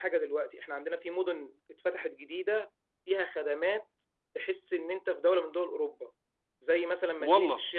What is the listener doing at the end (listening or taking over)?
listening